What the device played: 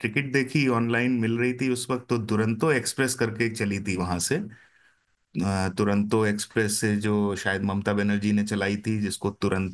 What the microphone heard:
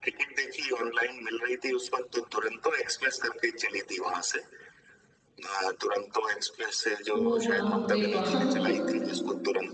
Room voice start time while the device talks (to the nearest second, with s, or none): 7 s